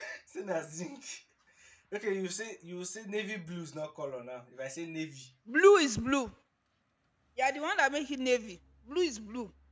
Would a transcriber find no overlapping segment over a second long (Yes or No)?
Yes